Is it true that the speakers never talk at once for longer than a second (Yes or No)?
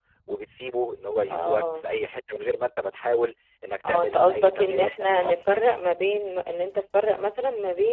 No